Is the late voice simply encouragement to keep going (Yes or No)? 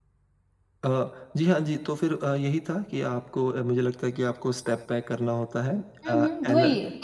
No